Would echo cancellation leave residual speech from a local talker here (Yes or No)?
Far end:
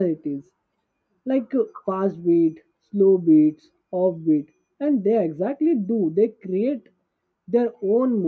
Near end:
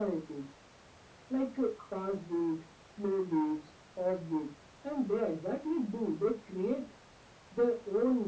No